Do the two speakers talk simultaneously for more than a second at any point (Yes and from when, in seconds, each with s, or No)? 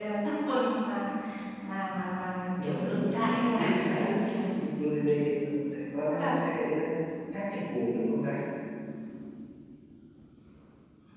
Yes, from 2.6 s